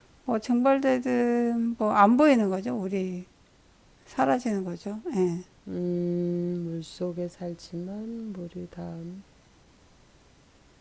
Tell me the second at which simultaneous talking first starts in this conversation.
none

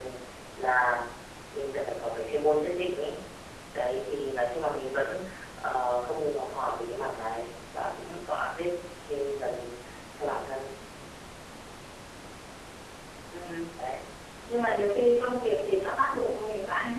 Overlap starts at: none

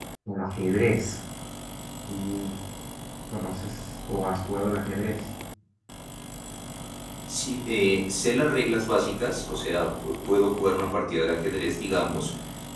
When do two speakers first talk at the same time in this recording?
none

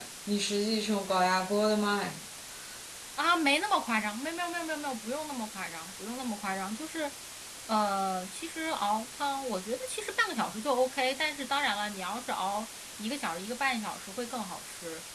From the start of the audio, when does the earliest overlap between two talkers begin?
none

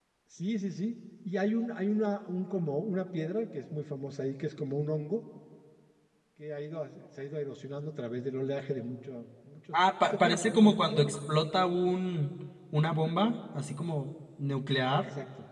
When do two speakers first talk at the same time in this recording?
9.7 s

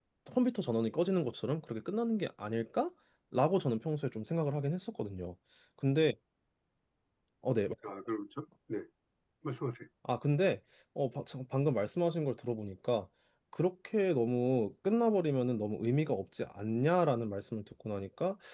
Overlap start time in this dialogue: none

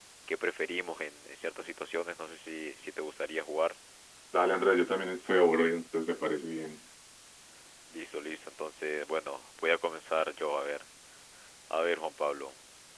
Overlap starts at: none

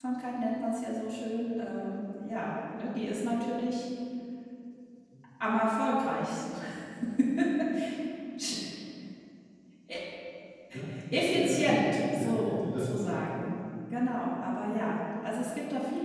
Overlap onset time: 11.1 s

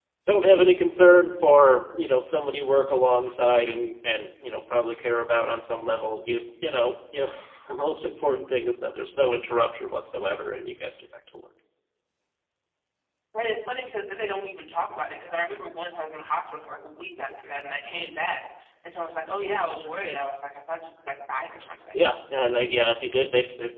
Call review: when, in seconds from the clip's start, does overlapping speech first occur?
none

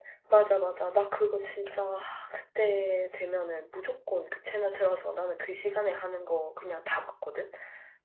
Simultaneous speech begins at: none

